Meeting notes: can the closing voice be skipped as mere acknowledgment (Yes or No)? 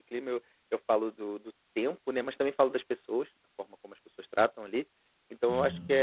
Yes